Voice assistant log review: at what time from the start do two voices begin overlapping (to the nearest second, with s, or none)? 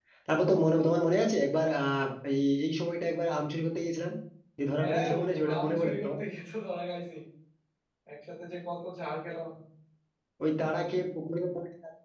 5 s